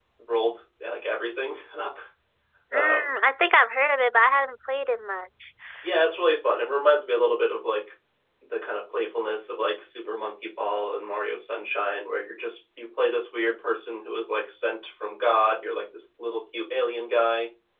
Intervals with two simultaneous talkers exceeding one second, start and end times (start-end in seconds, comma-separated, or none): none